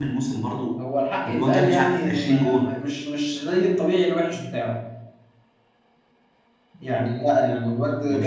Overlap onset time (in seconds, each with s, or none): 1.2 s